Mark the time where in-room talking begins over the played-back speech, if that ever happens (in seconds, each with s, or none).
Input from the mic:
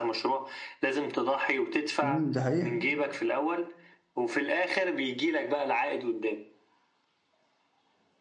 2.0 s